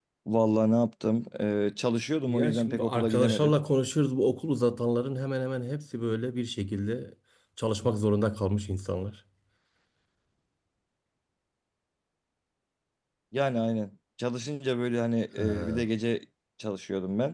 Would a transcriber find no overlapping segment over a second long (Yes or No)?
No